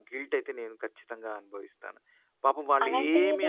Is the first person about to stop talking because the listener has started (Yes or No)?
Yes